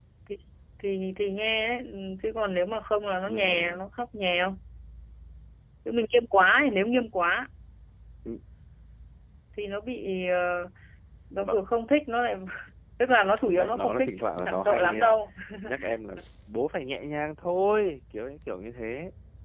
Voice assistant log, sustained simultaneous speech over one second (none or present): present